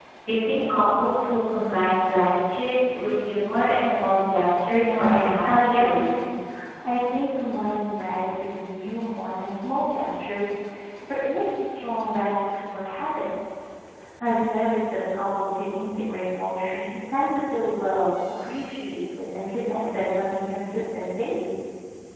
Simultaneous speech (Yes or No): Yes